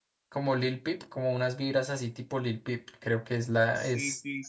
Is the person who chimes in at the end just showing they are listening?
No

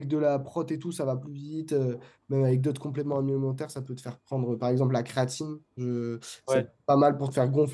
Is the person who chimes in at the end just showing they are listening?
Yes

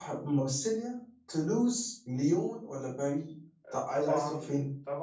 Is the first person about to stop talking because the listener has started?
Yes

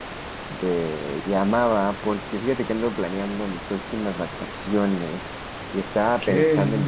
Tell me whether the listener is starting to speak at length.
No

